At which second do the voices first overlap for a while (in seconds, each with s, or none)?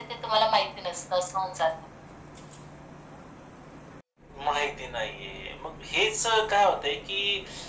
none